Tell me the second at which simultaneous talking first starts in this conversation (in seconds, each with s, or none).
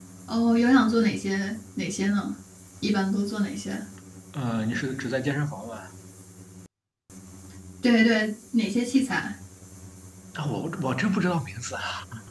none